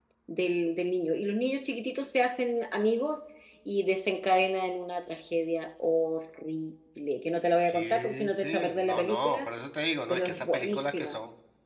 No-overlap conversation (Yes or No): No